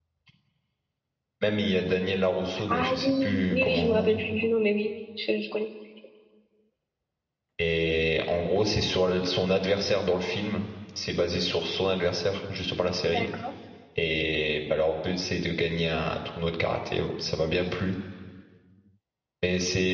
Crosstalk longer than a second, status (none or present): present